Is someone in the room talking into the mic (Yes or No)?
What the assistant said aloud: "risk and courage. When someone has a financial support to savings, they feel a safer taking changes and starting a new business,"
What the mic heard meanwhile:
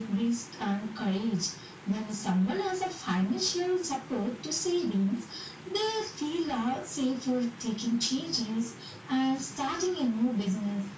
No